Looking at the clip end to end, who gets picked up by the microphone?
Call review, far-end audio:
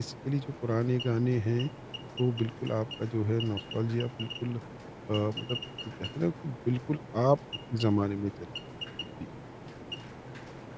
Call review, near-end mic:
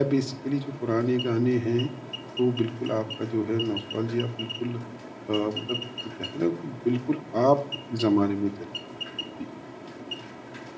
echo only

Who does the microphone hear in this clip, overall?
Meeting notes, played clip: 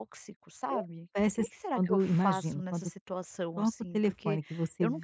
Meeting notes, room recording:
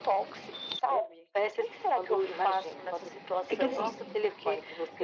both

